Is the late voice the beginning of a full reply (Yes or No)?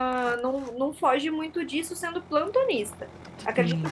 No